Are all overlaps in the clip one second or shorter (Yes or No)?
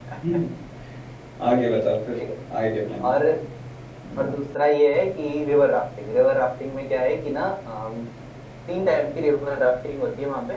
Yes